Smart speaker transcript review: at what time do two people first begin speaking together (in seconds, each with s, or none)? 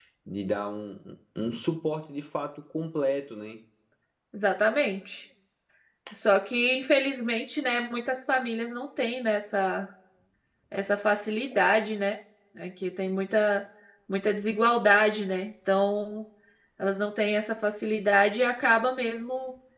none